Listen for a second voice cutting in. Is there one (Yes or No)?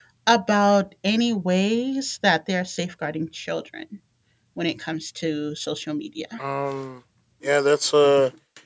No